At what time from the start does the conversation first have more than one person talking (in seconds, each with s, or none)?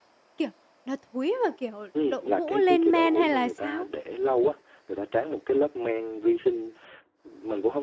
1.9 s